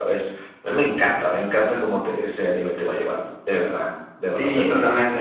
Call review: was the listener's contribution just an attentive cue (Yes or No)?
No